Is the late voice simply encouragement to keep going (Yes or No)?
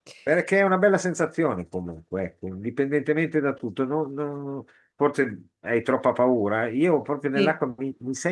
Yes